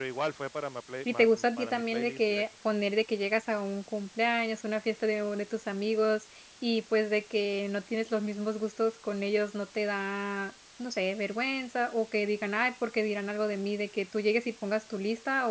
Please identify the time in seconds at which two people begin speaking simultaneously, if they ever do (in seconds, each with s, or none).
1.1 s